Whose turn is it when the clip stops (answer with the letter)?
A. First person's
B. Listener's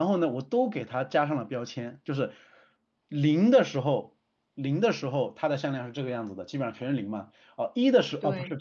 A